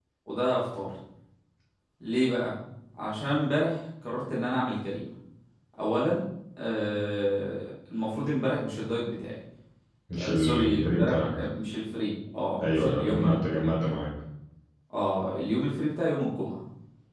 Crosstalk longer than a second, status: present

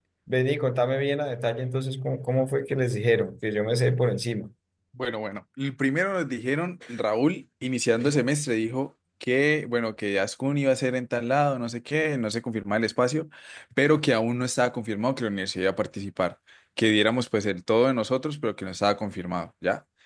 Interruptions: none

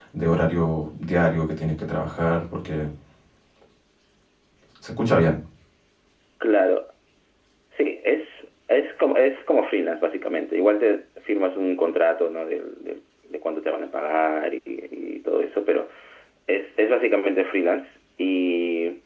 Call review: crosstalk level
none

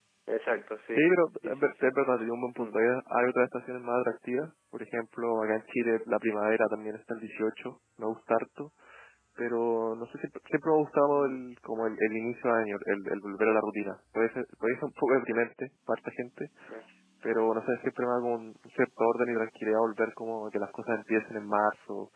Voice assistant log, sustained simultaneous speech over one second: none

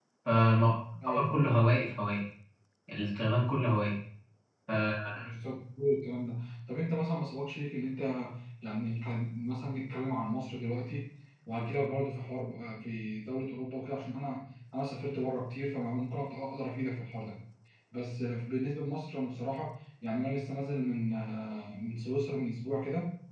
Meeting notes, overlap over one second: none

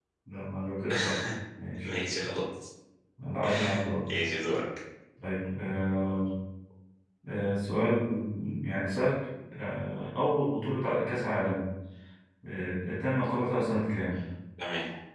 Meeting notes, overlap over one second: none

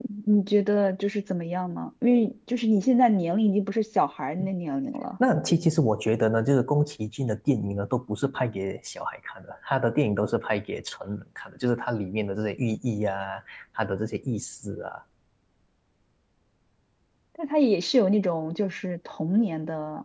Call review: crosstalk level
none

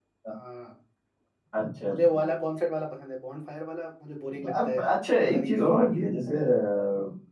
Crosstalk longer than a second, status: none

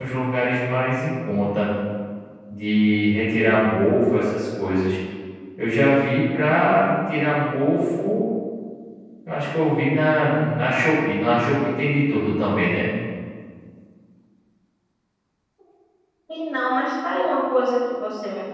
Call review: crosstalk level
none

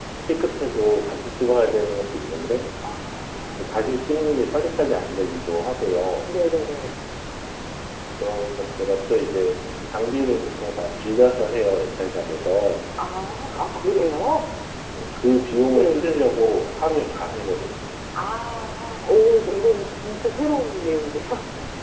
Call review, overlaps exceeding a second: none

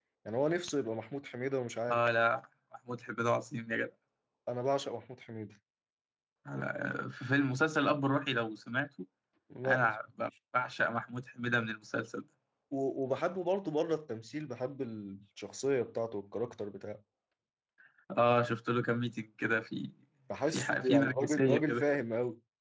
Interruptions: present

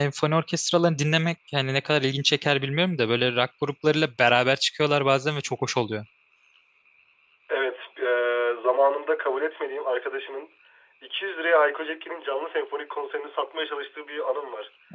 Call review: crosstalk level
none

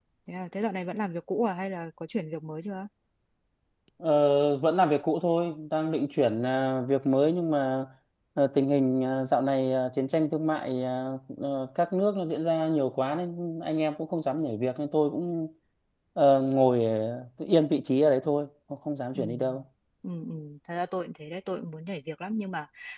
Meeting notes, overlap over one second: none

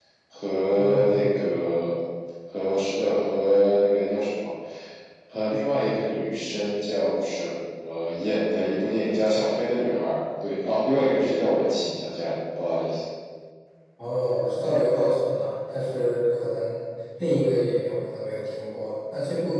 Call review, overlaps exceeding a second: none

